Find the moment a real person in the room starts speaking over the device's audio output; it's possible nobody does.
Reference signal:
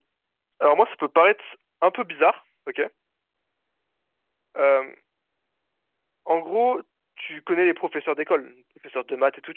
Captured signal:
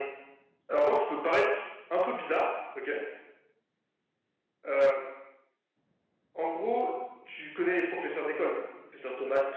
none

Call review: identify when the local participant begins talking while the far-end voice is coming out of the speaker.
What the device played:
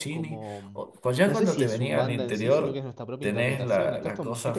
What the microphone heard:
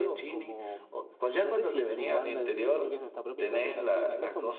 none

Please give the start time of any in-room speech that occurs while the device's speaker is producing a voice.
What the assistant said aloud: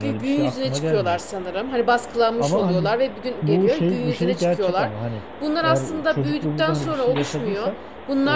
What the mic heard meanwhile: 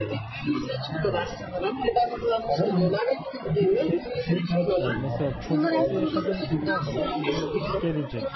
5 s

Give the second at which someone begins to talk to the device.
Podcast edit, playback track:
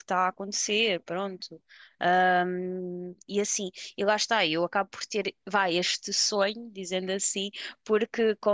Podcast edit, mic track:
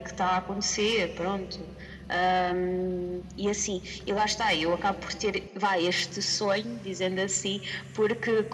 none

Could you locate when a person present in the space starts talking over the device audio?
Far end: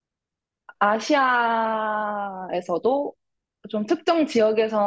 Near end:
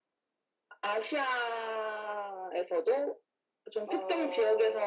4 s

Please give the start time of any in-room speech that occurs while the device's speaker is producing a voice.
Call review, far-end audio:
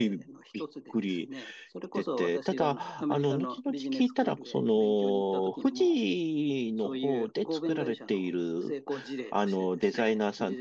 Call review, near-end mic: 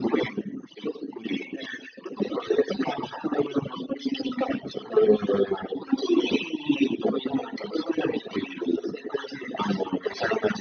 none

